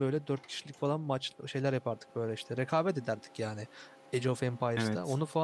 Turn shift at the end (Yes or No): No